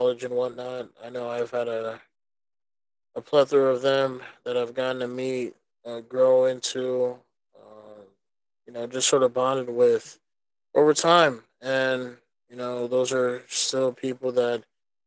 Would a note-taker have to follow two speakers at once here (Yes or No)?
No